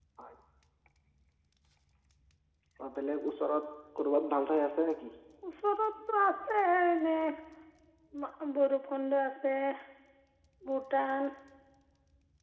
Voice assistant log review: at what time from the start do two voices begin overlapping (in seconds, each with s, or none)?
none